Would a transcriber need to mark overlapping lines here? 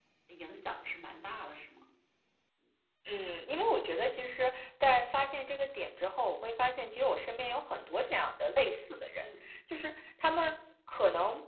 No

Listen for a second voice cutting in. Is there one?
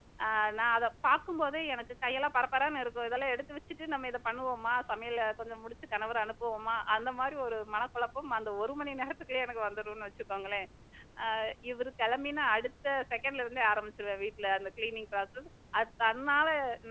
No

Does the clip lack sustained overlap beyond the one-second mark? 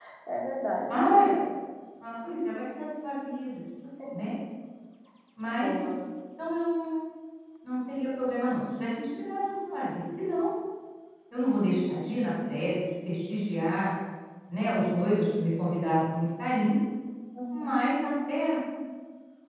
Yes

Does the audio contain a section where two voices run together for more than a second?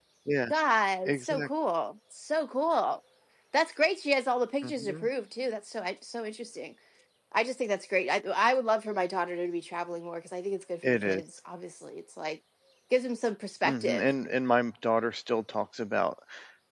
No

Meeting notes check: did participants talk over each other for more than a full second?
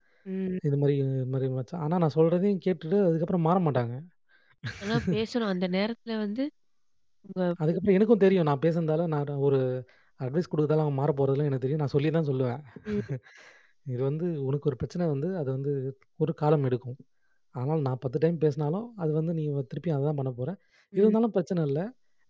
No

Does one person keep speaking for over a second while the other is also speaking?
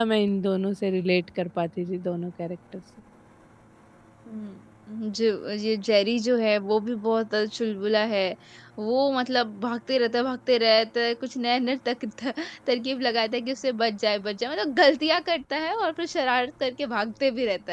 No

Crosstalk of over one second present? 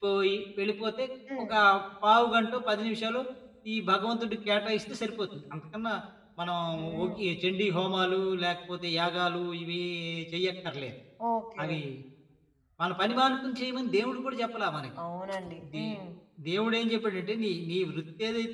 No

